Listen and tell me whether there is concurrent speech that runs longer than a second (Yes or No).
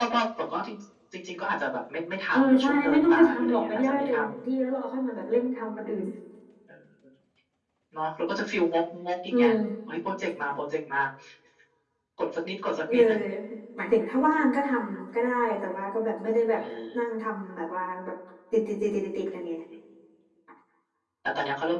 Yes